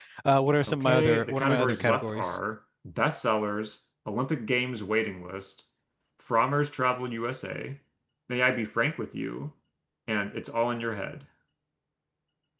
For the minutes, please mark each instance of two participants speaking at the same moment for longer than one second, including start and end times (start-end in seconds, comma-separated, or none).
0.7-2.4